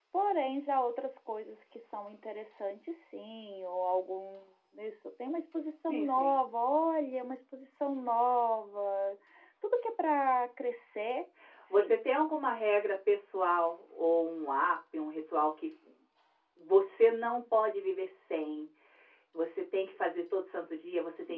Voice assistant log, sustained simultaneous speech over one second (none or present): none